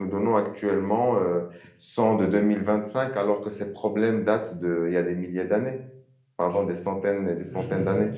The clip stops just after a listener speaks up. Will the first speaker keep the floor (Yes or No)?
No